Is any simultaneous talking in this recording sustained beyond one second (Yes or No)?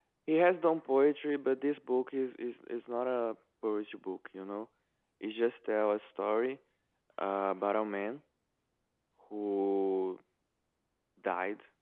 No